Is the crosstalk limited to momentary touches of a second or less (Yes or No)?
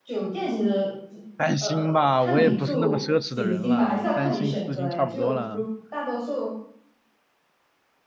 No